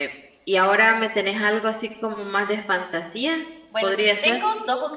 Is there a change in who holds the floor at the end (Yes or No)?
Yes